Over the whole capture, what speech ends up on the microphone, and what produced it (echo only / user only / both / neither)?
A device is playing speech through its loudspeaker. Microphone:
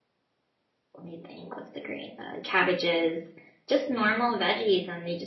user only